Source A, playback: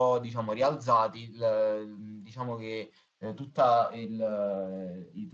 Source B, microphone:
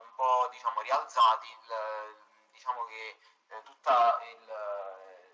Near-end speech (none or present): none